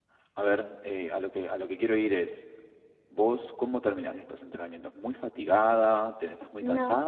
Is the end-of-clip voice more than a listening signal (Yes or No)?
No